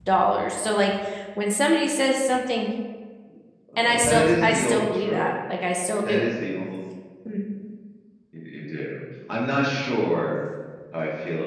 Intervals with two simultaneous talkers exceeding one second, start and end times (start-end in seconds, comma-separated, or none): 3.8-5.3